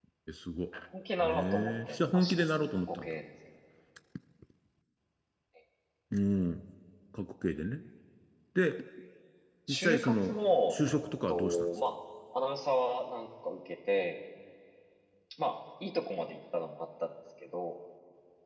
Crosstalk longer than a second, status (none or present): present